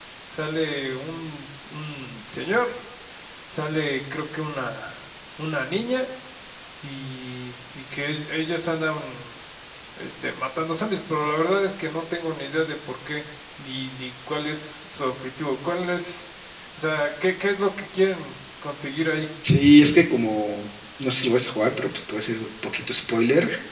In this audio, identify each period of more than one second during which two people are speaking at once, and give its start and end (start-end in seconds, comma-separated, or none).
none